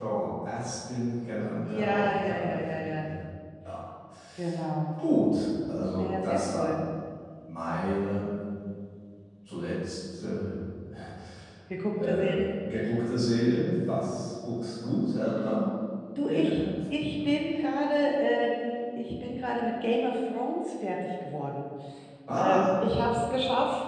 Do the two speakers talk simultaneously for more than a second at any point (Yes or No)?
Yes